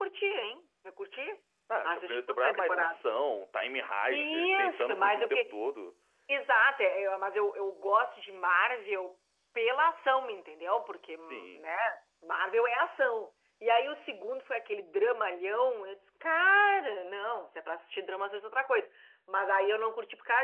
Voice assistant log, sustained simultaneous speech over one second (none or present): present